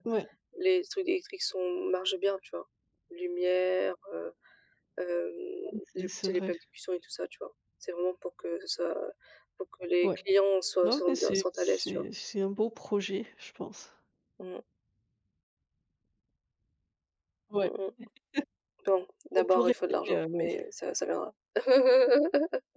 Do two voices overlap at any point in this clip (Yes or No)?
Yes